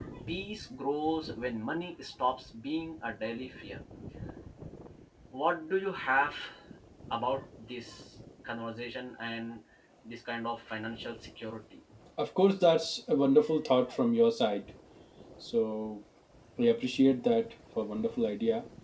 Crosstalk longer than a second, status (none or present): none